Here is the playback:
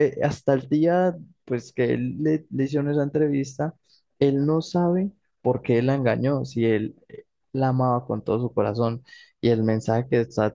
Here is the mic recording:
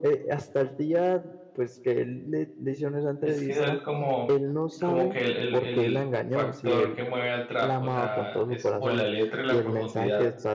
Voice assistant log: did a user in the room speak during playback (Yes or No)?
Yes